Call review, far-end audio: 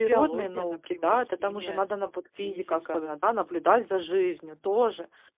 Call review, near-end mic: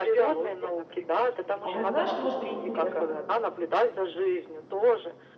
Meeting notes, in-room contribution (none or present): present